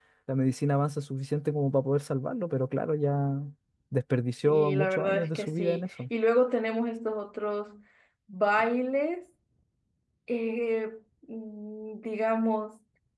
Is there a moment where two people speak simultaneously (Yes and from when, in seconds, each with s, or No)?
Yes, from 4.4 s